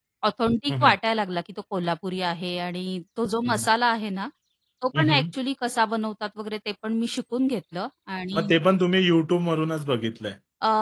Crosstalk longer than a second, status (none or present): none